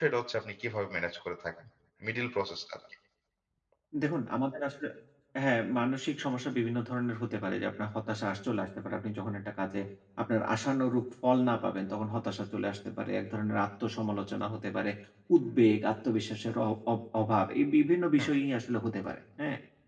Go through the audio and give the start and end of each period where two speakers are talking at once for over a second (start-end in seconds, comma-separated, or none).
none